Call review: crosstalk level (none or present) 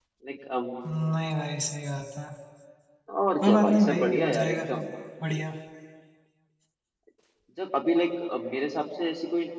present